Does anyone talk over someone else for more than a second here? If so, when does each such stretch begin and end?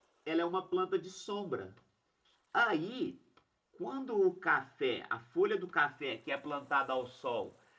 none

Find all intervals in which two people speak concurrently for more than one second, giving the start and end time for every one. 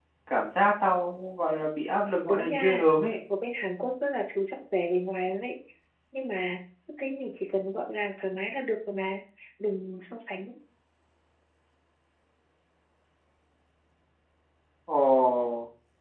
none

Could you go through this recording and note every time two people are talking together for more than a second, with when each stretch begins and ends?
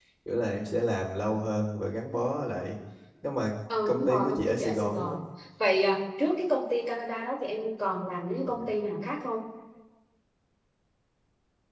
3.9-5.2

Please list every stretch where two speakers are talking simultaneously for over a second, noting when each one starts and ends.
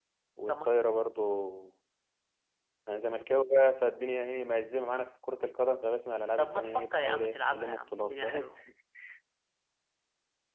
6.4-8.5

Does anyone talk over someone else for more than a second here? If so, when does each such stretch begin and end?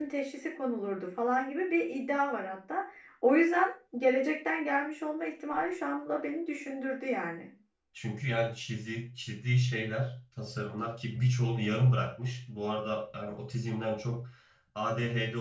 none

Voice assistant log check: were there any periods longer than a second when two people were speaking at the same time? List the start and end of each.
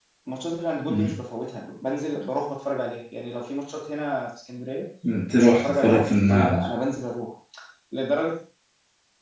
5.3-6.7

